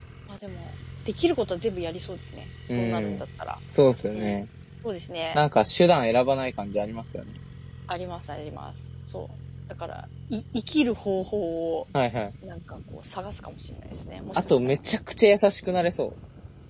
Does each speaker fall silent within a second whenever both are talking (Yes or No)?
Yes